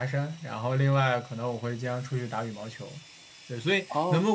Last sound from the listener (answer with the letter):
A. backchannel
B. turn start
A